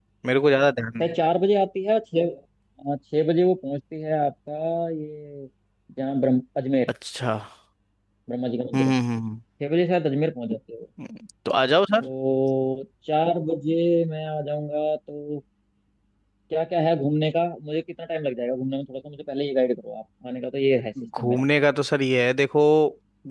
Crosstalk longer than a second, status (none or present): none